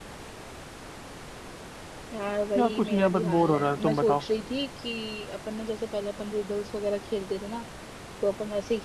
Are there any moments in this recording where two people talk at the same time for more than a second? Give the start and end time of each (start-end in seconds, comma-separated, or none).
2.6-4.2